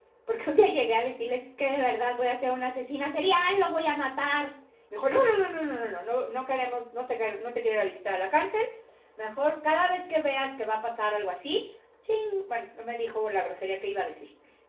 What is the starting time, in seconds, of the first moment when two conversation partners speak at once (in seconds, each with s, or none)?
none